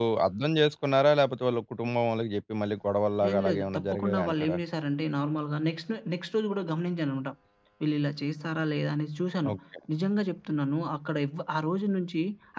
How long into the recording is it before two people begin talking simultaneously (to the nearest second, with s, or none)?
3 s